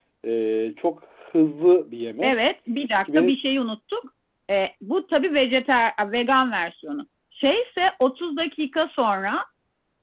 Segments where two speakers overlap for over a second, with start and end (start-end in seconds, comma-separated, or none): none